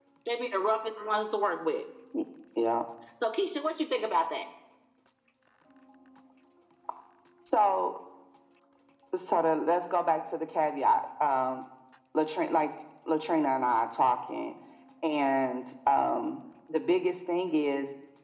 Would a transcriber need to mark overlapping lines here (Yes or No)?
No